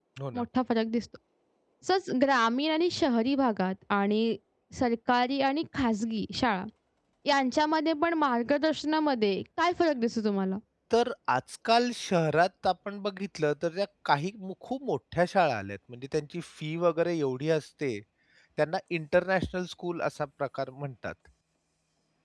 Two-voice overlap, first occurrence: none

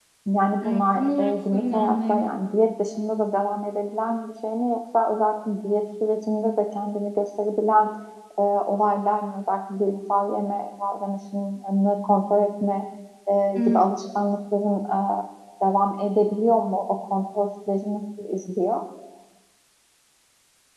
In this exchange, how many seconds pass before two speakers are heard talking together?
0.6 s

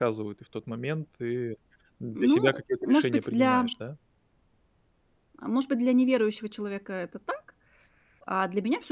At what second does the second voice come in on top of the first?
2.1 s

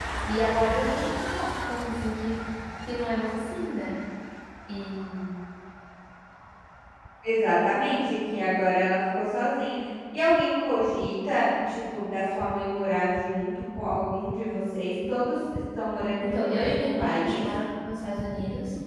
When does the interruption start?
16.2 s

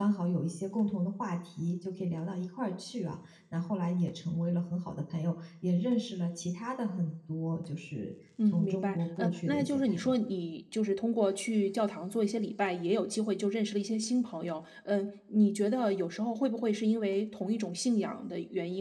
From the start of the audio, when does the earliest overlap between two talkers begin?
8.4 s

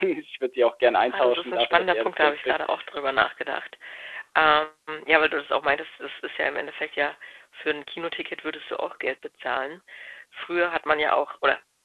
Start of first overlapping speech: 1.1 s

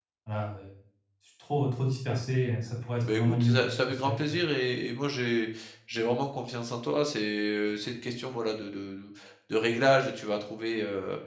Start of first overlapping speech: 3.0 s

